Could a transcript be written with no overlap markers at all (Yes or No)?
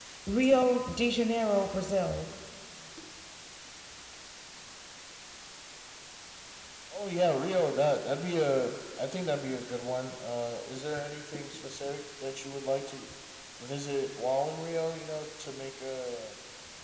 Yes